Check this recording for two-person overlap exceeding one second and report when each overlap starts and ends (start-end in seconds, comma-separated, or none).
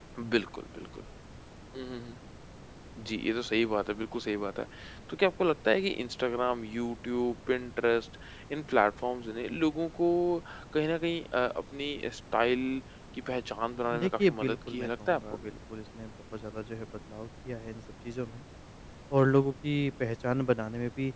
14.0-15.5